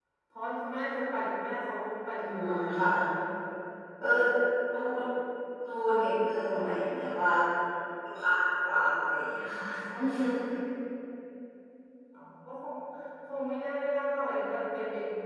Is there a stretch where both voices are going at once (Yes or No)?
Yes